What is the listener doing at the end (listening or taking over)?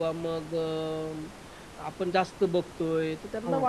listening